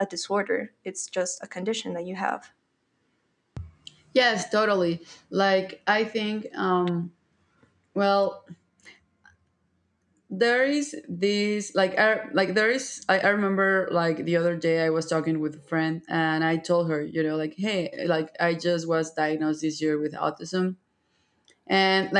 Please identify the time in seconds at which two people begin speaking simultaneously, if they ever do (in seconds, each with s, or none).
none